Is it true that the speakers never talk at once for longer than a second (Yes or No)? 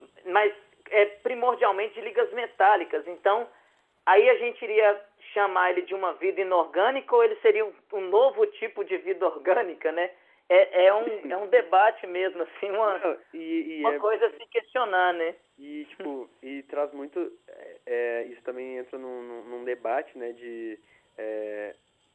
Yes